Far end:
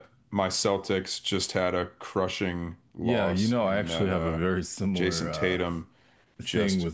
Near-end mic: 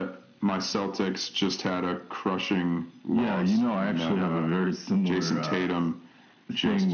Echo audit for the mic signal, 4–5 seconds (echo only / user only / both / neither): echo only